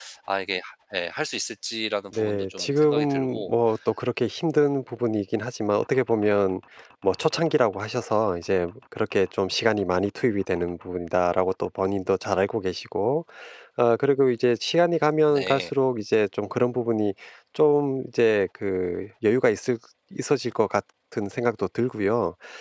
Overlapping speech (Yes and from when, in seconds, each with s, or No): Yes, from 2.1 s